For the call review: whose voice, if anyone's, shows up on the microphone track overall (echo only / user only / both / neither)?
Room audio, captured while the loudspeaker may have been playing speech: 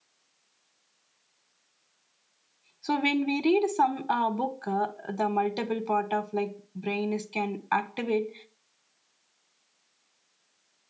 user only